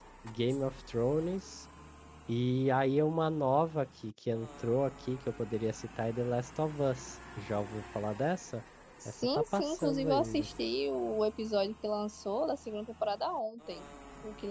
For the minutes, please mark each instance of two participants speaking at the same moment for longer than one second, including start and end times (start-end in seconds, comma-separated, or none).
9.0-10.5